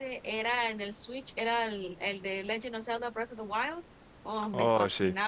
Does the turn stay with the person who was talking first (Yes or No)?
Yes